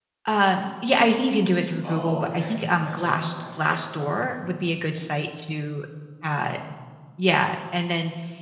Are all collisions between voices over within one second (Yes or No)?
No